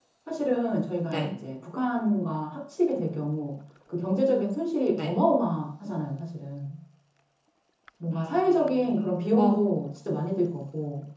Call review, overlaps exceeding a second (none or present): present